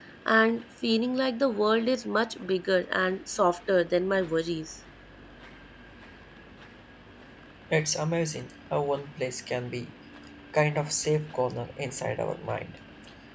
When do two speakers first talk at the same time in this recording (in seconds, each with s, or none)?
none